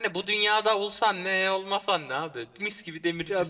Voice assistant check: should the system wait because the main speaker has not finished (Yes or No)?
No